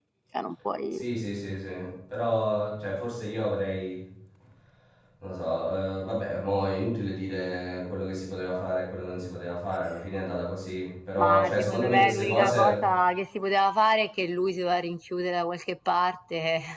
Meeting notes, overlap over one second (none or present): present